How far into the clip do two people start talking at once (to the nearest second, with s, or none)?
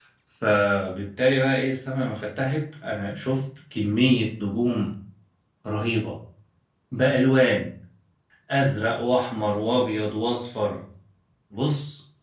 none